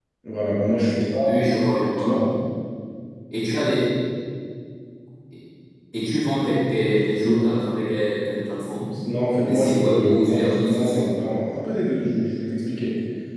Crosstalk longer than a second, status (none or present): present